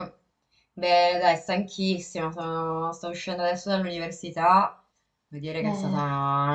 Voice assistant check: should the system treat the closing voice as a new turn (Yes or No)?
No